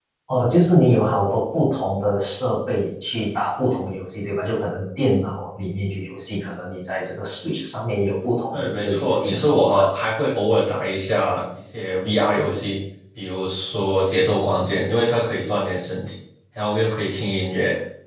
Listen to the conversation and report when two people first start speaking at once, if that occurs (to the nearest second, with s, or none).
9 s